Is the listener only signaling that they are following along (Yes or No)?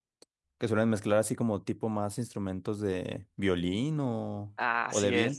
No